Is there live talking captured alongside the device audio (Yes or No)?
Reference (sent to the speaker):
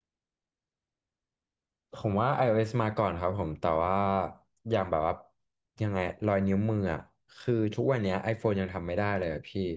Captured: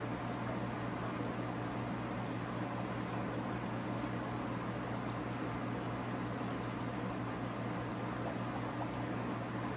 No